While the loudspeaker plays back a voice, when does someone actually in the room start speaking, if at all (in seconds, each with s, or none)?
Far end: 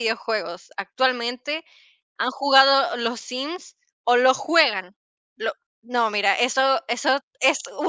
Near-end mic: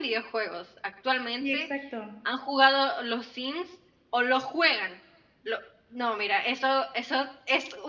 1.4 s